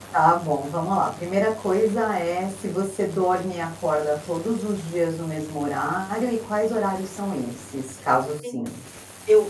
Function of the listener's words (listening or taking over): taking over